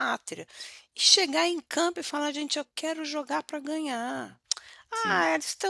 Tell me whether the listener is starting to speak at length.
No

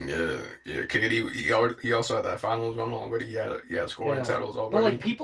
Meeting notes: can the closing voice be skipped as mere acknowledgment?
No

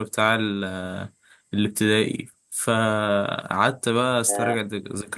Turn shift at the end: No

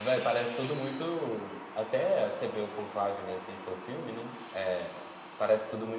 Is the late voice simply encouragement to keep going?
Yes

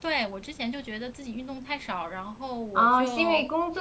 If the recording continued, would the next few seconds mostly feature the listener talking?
Yes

